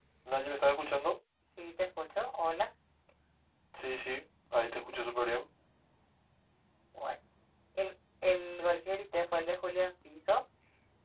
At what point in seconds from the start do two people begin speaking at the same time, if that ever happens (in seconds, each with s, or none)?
none